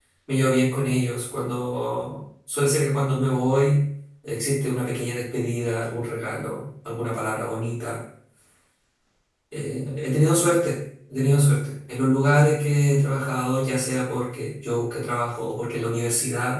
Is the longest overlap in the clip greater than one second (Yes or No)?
No